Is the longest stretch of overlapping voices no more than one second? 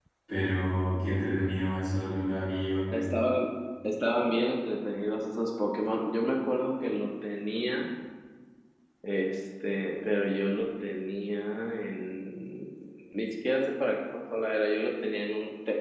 Yes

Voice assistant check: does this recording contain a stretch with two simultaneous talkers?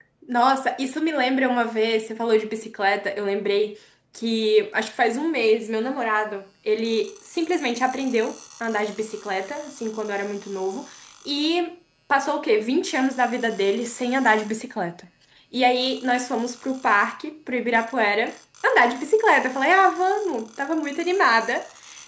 No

